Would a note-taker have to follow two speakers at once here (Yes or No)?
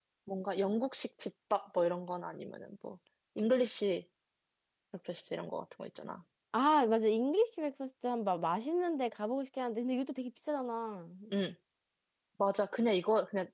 No